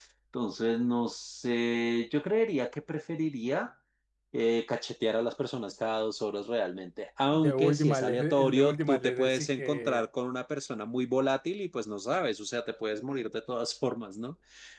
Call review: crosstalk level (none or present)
present